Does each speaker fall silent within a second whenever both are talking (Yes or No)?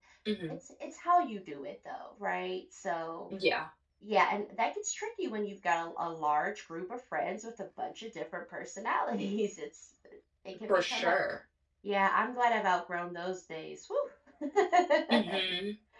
Yes